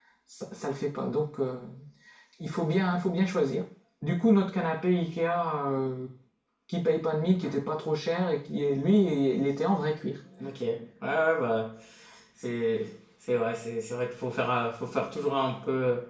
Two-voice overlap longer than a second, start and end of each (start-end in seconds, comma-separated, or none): none